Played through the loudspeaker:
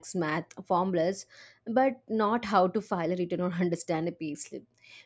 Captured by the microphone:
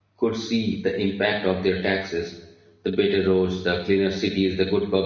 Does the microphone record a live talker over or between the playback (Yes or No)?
Yes